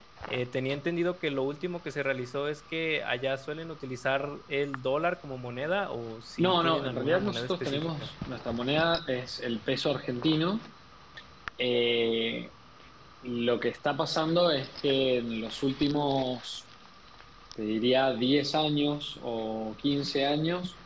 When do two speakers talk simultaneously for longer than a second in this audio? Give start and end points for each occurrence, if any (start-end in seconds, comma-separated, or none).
6.4-8.1